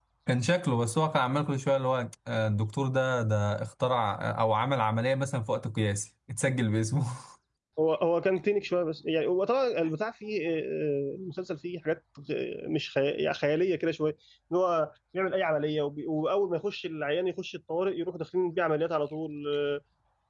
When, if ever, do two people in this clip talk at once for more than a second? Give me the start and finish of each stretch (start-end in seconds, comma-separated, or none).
none